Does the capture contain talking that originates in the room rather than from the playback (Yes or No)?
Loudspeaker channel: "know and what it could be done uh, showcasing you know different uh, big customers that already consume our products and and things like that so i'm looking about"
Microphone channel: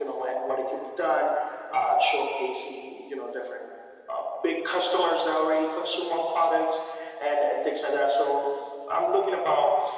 No